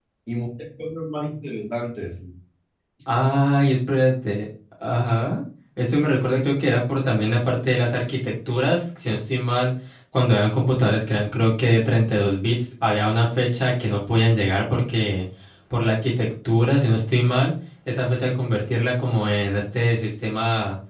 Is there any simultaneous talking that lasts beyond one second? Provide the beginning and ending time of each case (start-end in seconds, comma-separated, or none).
none